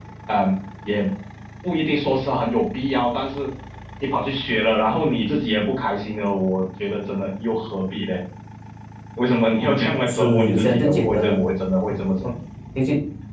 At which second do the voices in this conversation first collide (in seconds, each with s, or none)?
10.1 s